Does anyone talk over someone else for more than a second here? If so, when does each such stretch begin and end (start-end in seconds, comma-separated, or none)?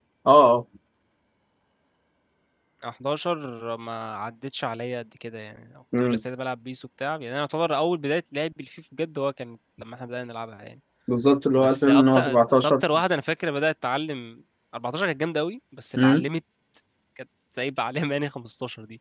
11.6-12.8